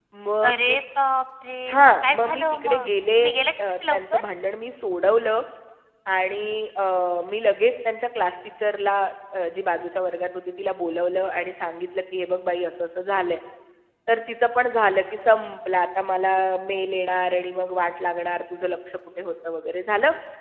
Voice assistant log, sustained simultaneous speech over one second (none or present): present